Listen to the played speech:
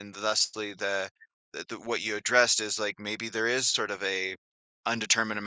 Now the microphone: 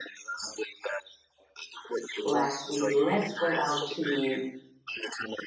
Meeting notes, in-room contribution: present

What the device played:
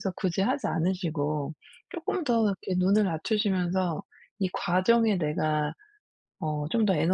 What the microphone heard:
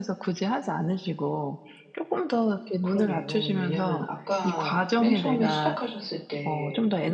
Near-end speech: present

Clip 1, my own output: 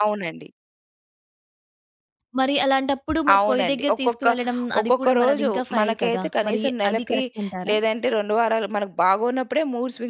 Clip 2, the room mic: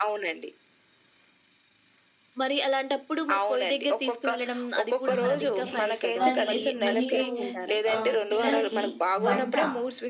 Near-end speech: present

